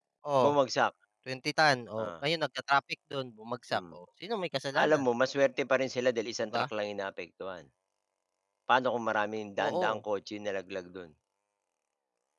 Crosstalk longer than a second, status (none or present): none